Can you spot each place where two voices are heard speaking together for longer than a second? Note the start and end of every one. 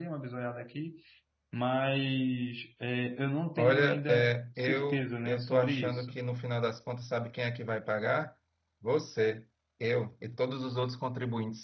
3.6-6.2

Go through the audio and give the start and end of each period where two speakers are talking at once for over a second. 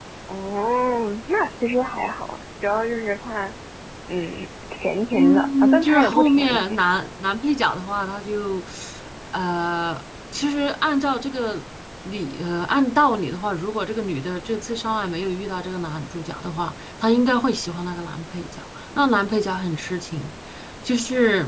5.1-6.8

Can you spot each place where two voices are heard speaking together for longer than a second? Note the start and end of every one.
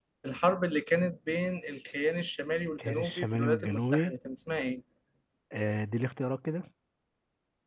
2.8-4.1

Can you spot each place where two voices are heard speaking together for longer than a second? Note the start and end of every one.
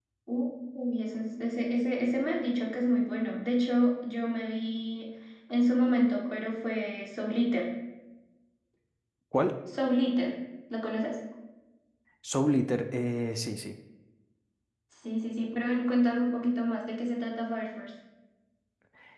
none

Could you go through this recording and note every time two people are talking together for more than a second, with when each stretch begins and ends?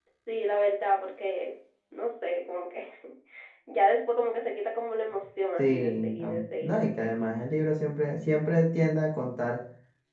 5.6-7.2

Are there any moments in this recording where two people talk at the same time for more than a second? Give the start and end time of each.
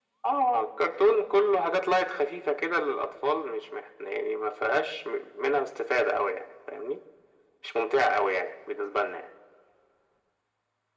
none

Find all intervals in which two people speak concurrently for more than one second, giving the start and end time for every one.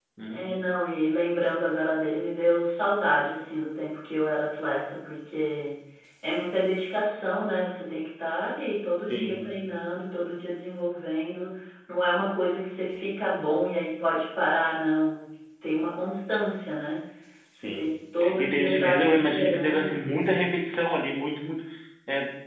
18.4-19.9

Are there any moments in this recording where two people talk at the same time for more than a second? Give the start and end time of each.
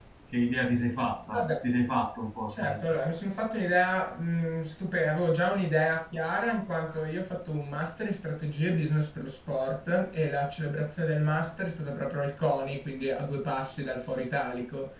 none

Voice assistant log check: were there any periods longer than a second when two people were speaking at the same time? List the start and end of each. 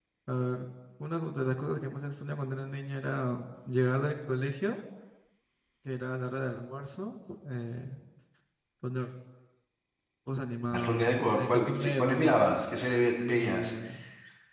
10.7-12.4

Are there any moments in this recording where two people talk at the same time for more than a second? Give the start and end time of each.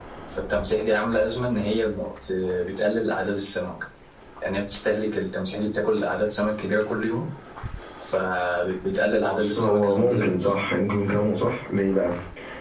9.2-10.6

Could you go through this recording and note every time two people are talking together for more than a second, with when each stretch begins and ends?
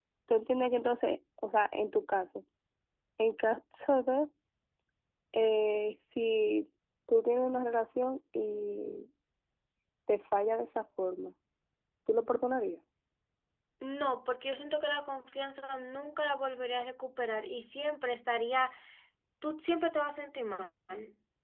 none

